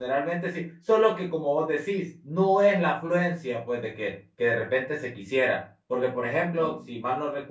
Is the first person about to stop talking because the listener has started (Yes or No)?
No